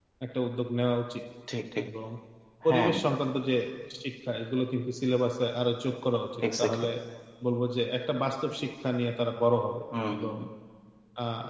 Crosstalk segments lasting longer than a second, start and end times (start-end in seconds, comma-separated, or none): none